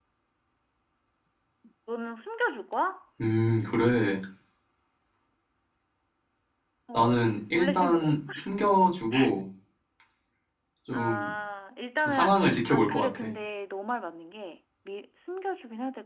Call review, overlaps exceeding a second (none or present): present